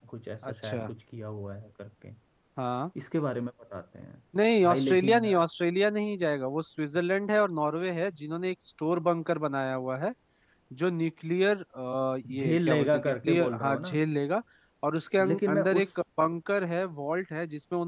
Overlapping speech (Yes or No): Yes